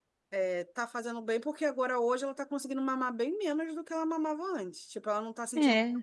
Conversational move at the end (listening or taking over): listening